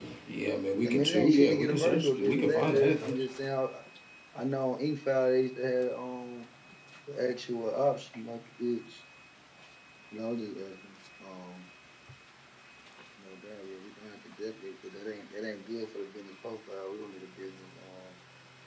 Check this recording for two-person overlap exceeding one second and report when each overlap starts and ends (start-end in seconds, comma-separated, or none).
0.9-3.2